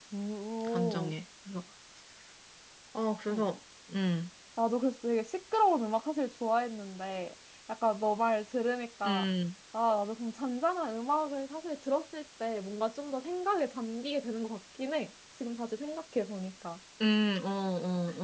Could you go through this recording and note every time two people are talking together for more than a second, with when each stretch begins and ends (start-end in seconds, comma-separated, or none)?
none